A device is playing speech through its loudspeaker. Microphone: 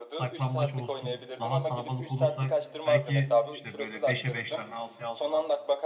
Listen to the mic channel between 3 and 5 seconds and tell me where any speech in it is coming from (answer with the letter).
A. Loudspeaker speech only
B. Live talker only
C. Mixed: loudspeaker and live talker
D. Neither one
C